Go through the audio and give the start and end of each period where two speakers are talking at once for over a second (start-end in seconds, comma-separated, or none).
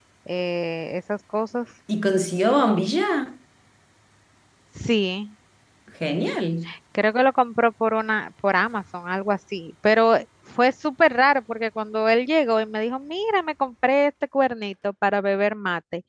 none